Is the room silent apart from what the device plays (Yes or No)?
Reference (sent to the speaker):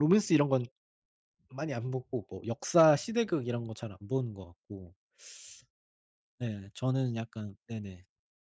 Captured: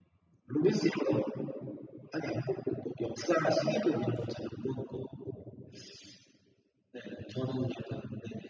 No